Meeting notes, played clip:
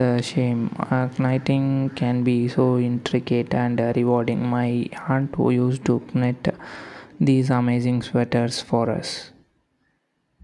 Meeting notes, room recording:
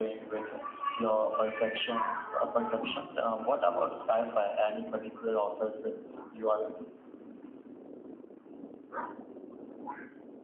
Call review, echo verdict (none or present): none